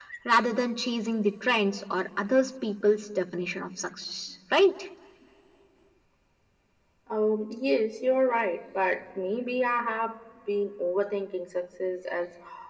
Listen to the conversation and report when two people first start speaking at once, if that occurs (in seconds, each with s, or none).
none